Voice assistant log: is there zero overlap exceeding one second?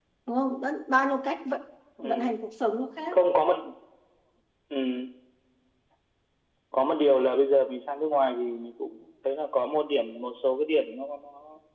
Yes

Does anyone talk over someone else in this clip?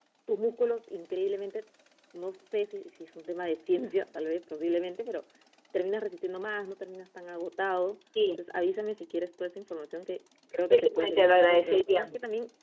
Yes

